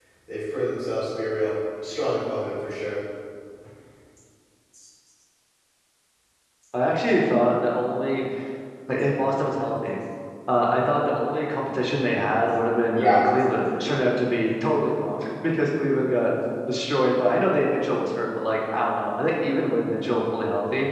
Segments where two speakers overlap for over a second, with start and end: none

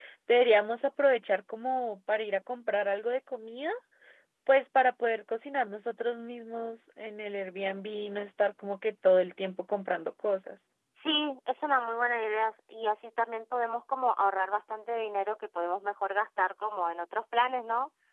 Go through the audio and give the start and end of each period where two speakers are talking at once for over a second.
none

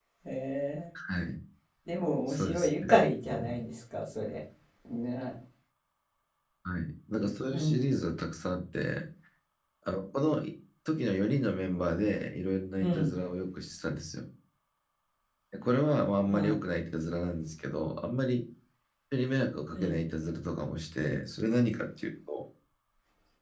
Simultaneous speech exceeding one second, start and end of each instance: 2.3-3.7

